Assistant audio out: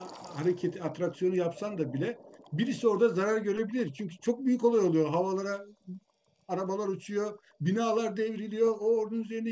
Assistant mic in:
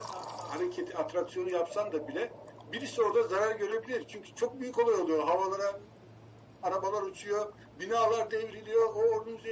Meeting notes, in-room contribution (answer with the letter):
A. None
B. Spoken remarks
A